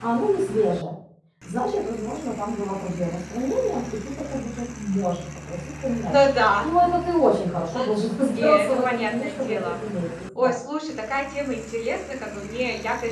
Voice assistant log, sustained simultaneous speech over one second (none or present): present